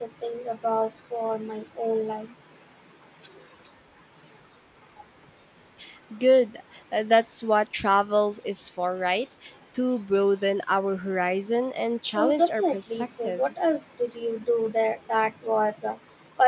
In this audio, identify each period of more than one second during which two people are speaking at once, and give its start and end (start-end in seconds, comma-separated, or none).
12.2-13.4